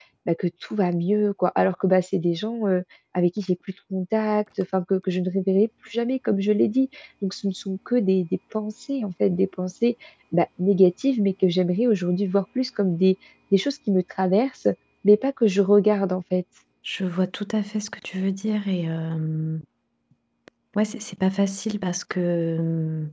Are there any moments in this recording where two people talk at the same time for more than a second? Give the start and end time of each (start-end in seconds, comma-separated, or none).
none